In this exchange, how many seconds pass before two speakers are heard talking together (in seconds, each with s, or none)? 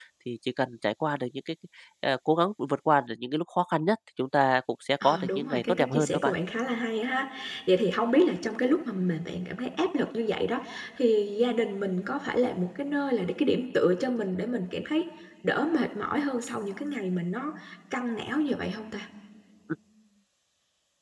5.0 s